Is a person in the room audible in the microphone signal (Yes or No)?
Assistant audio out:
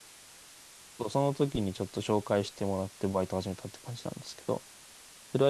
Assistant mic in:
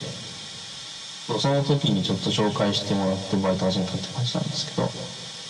No